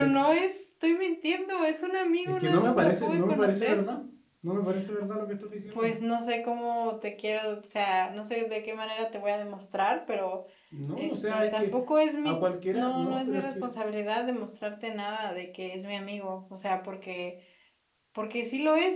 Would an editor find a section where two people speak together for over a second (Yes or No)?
Yes